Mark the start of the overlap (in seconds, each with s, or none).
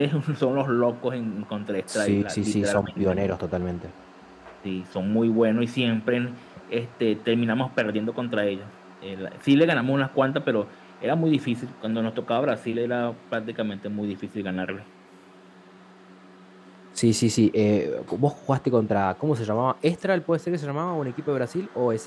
1.9 s